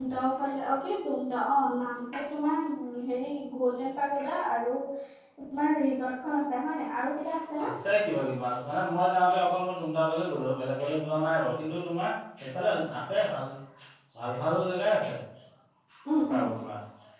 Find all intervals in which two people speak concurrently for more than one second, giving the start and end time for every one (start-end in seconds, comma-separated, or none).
none